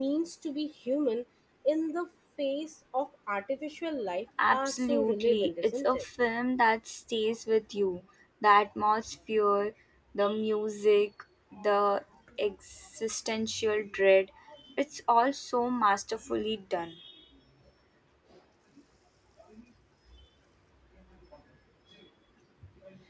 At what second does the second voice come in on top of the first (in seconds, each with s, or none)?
4.4 s